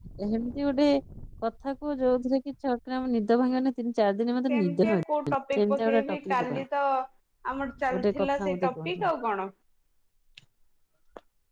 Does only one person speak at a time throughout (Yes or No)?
No